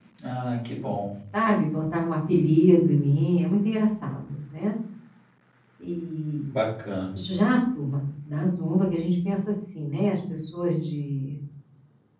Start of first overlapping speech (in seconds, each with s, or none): none